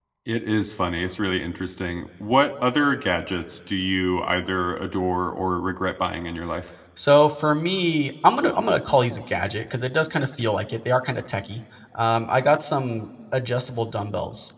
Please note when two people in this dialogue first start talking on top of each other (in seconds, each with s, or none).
none